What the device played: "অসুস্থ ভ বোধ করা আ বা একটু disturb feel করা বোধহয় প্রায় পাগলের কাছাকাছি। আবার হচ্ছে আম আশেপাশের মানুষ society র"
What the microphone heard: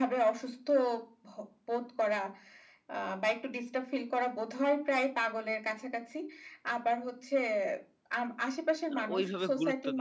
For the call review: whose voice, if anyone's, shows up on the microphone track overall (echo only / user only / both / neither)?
both